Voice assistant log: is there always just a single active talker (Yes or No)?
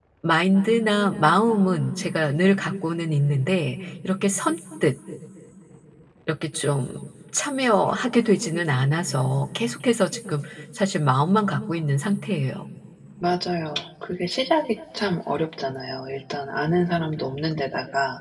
Yes